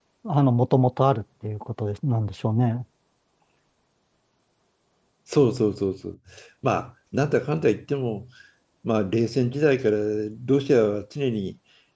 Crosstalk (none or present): none